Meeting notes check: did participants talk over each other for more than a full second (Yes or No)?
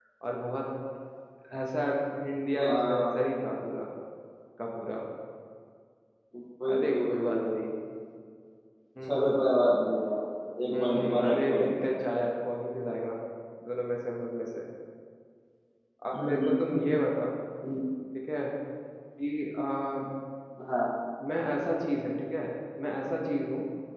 Yes